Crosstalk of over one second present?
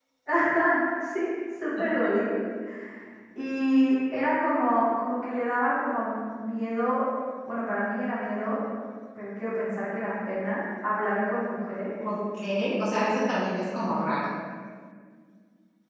No

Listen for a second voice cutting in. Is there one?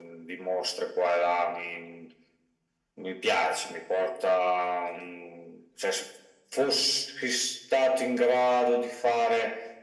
No

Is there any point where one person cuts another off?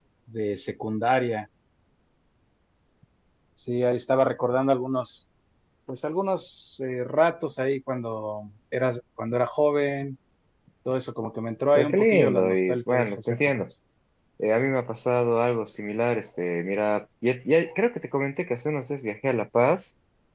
Yes, from 11.8 s

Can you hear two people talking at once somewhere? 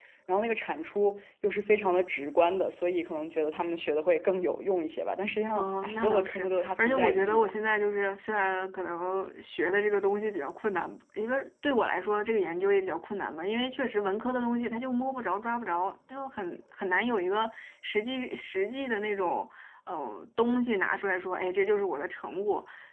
Yes, from 5.6 s

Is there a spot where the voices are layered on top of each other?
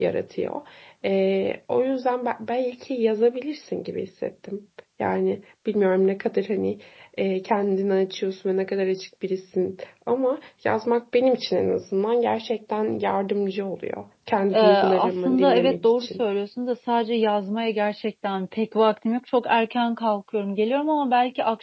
Yes, from 14.5 s

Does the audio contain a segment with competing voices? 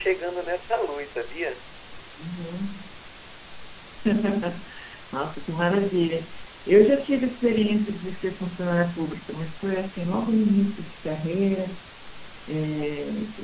No

